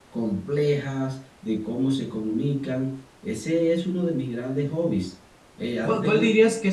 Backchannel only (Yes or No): No